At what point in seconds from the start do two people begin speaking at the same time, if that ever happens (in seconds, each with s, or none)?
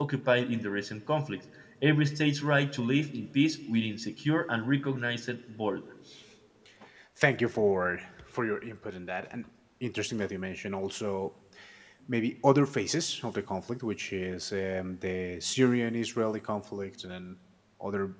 none